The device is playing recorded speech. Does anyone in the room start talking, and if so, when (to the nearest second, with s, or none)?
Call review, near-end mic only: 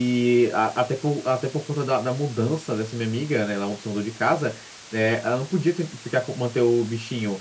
none